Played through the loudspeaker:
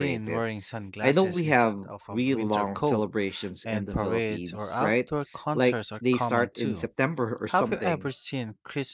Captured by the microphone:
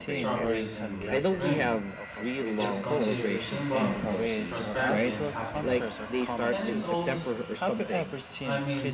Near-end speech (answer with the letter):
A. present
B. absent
A